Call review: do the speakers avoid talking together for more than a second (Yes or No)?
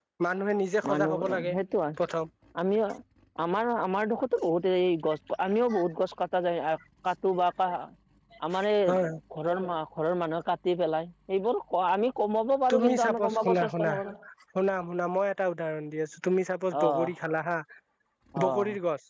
No